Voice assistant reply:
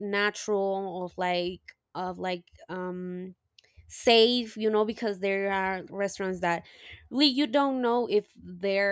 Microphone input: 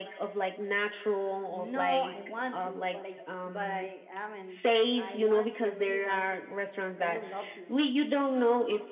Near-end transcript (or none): No, I want to, but I but I haven't. I want to. I really want to. I would love to.